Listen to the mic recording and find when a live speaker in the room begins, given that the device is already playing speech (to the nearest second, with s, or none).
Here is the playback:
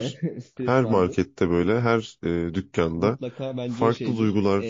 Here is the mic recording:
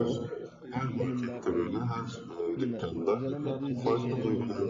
1 s